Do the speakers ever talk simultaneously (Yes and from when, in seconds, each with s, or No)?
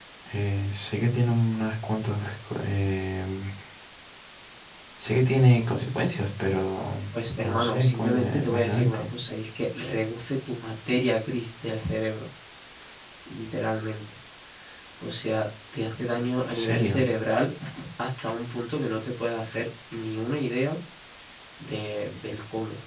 Yes, from 7.4 s